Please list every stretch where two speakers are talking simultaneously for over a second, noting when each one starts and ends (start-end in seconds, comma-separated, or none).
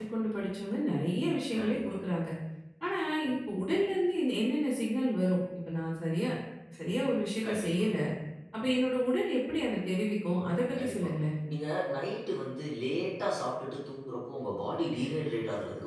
none